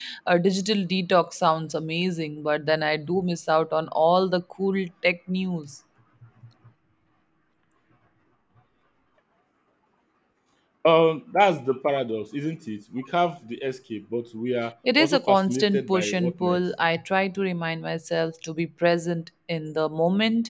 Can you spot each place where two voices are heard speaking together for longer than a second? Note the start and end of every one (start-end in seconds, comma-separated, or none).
15.0-16.6